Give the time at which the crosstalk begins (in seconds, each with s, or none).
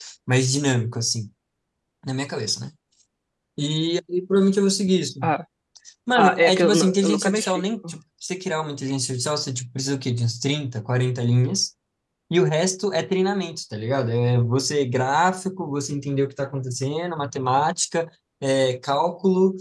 6.1 s